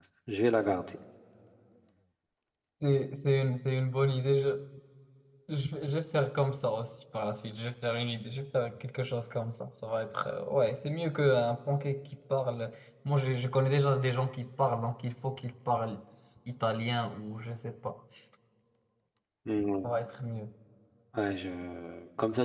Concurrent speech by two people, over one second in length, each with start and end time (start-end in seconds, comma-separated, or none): none